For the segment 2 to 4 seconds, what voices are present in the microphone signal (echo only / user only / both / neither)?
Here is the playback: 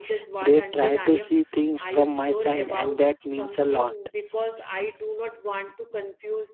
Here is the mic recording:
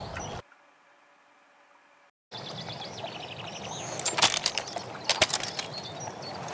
neither